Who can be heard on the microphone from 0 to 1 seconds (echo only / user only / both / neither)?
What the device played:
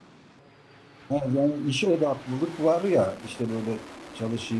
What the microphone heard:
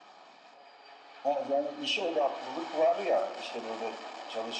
neither